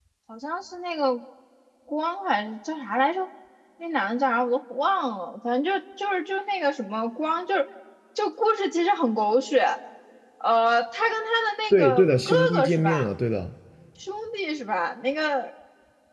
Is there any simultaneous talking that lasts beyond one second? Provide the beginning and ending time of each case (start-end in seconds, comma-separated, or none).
11.7-13.1